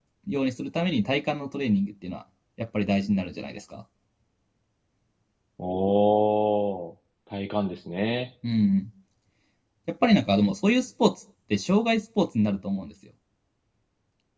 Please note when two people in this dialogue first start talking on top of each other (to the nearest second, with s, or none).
none